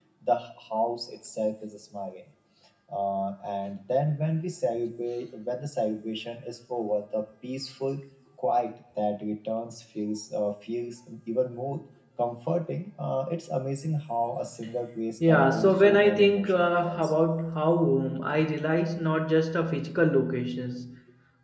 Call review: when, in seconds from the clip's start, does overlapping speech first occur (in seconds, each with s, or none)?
15.2 s